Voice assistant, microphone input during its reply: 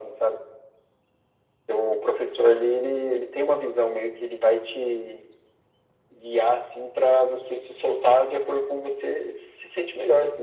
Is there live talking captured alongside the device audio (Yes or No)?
No